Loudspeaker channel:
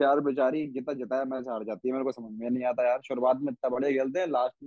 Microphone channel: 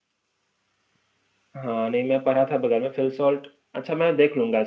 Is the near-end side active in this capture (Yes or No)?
Yes